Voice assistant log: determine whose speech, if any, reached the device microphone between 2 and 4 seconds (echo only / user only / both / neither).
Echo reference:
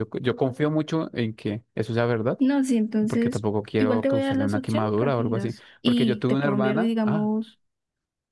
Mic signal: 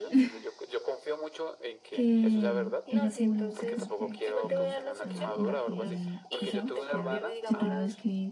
both